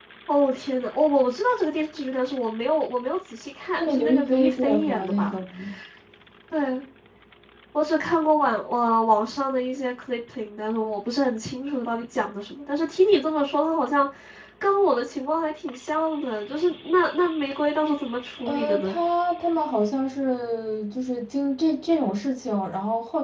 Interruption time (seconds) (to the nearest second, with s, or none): 4 s